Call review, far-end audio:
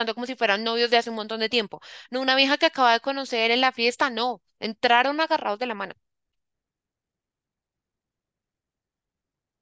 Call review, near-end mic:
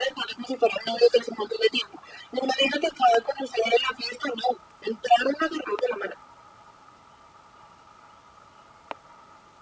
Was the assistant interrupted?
No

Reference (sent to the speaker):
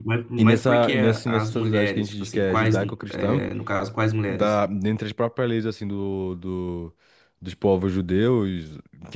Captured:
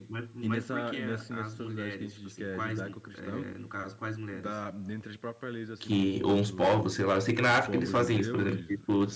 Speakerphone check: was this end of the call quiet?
No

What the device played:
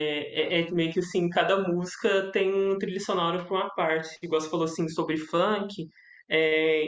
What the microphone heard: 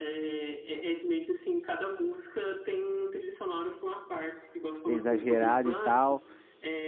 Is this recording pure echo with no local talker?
No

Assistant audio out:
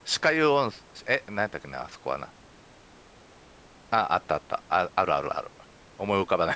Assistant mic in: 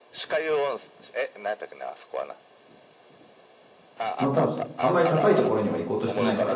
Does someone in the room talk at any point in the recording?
Yes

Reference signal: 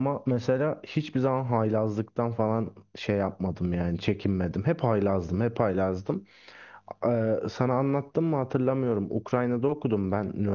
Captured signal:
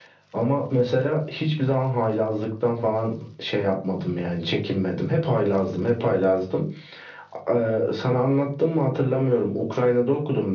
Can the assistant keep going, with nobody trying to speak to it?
Yes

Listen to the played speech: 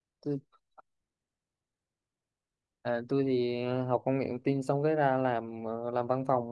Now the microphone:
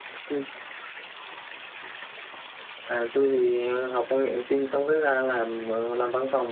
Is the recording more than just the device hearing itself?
No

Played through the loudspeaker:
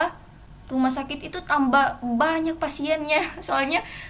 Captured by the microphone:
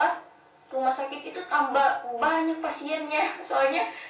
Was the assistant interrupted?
No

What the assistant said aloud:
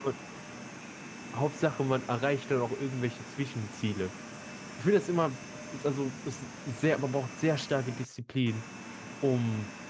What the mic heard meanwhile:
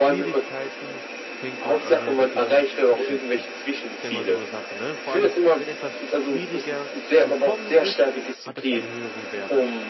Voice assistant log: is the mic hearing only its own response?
No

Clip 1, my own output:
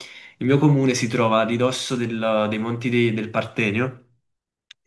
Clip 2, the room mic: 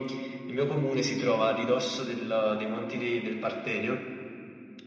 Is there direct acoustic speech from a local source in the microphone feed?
No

